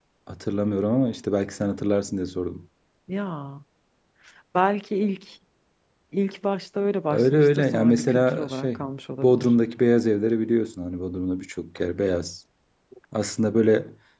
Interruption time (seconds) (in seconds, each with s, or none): 7.1 s